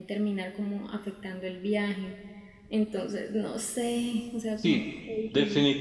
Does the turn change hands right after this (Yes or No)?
Yes